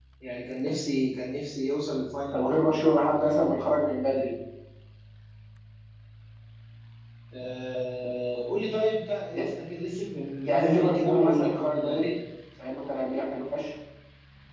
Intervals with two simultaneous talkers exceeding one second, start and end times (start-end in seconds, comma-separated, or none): 10.4-12.1